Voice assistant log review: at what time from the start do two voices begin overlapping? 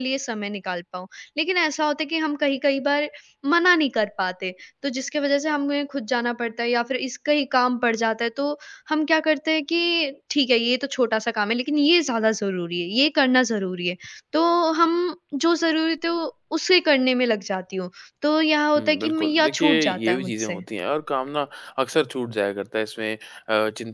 18.8 s

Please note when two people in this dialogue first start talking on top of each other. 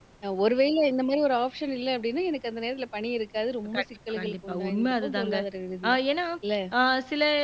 3.6 s

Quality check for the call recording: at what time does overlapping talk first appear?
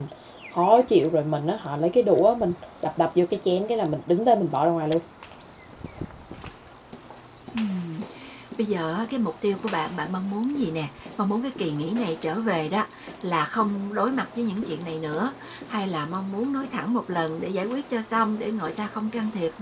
none

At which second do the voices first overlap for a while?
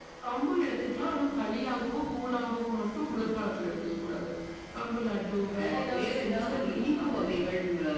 5.6 s

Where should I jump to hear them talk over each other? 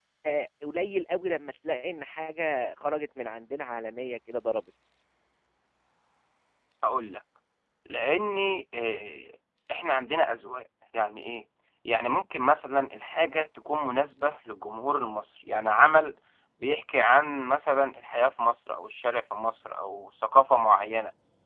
none

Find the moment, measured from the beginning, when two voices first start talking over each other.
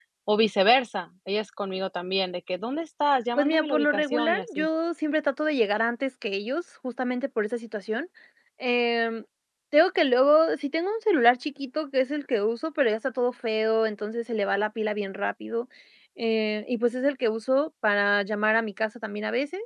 3.4 s

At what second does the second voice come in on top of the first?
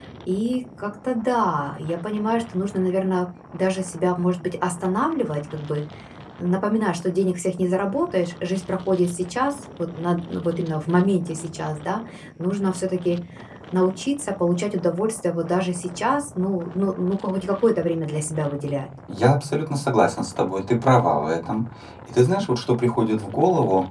none

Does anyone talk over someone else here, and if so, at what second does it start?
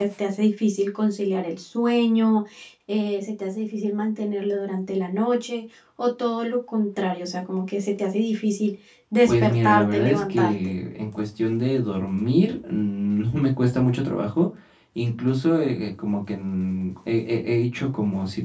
9.3 s

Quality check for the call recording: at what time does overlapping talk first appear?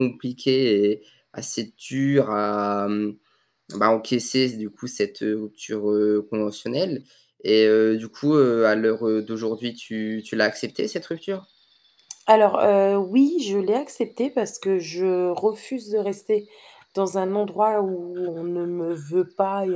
none

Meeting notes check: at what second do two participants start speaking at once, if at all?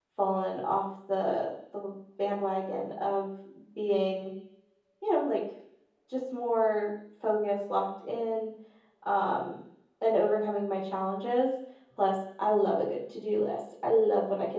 none

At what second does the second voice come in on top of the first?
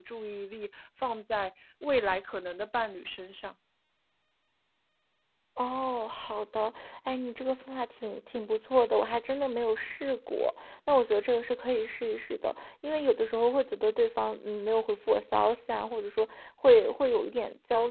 none

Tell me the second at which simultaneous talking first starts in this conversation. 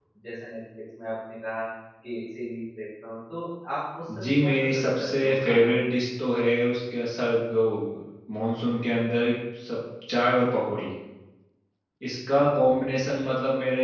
4.1 s

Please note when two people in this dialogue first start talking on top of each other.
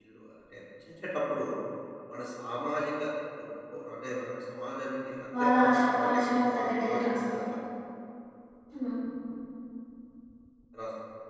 5.3 s

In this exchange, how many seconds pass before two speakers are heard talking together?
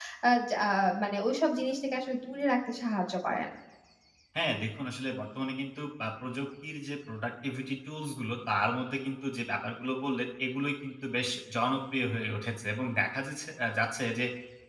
none

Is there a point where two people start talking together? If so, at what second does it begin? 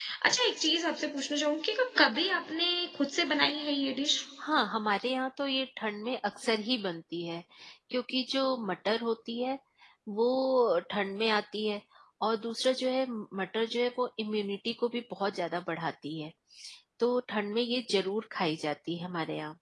none

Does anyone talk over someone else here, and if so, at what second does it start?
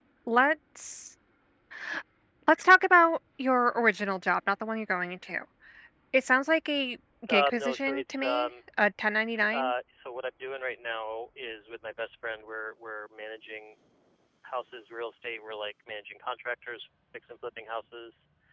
7.3 s

